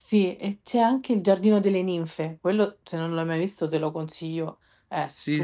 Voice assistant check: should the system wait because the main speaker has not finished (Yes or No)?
No